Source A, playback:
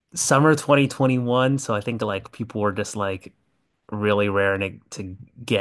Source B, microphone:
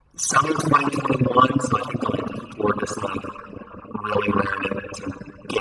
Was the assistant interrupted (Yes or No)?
No